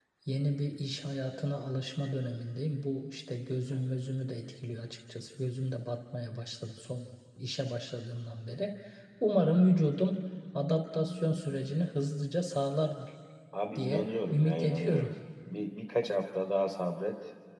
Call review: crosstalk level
present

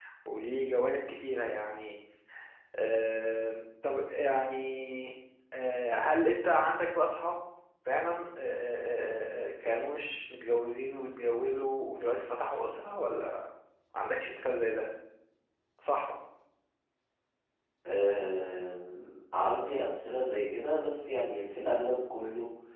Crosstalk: none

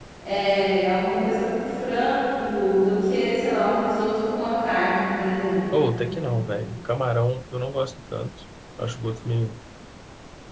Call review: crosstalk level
none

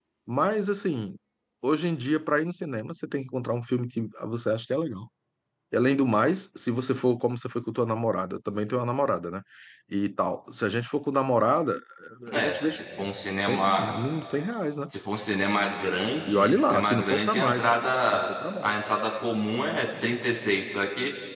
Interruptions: present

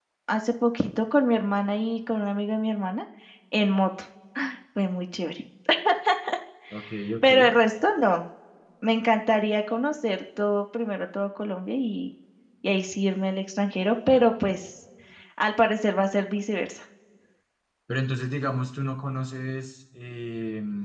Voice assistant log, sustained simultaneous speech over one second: none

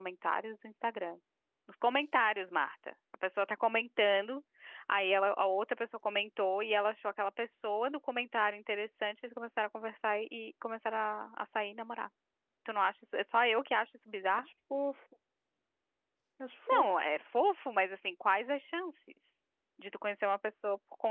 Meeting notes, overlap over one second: none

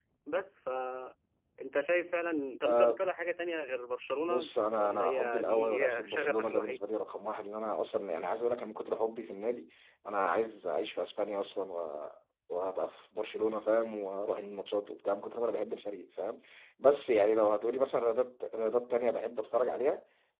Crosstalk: present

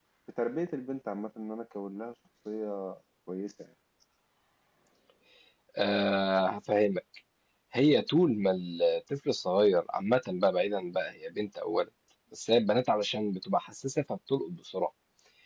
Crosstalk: none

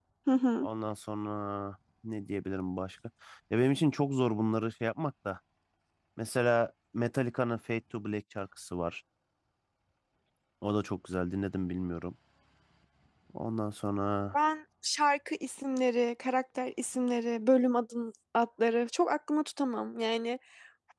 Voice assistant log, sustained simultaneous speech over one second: none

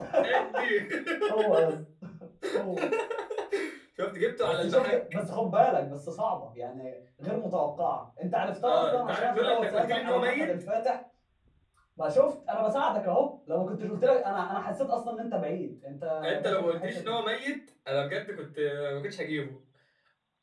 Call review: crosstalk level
present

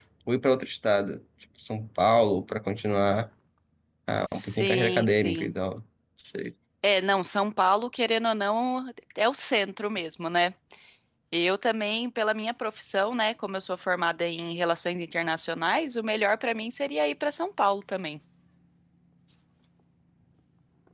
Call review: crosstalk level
present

